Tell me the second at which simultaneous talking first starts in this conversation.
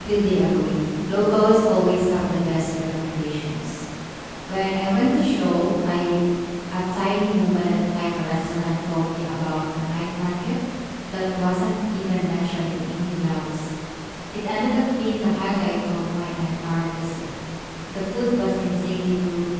none

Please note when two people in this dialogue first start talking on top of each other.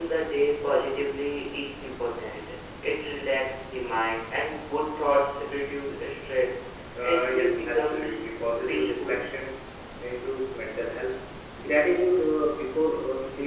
7.0 s

